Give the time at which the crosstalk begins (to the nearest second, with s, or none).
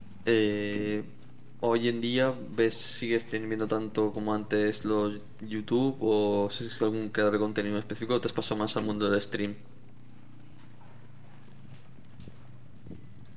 none